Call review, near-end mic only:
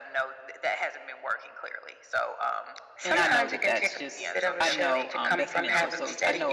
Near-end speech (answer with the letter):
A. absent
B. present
B